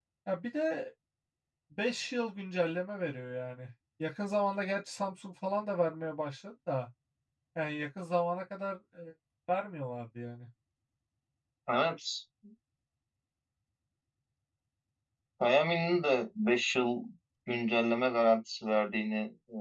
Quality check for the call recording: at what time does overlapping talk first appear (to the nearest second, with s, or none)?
none